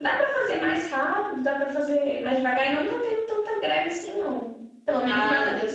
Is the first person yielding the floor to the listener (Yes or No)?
Yes